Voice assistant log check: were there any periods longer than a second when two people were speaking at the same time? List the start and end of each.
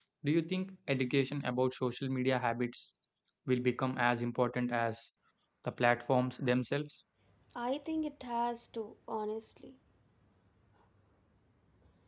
none

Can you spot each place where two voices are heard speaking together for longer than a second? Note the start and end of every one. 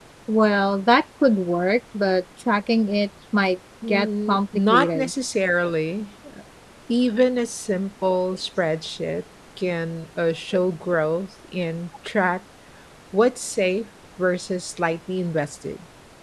3.9-5.1

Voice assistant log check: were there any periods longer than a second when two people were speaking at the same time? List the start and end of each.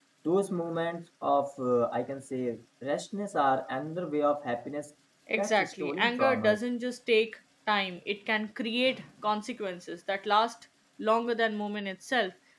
5.4-6.6

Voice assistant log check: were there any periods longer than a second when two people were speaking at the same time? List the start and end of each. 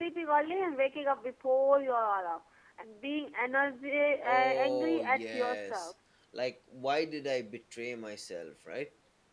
4.2-5.9

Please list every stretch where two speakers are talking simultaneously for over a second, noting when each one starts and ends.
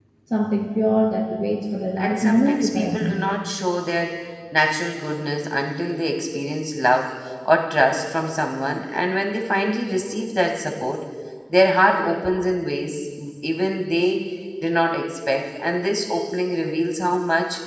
2.0-3.2

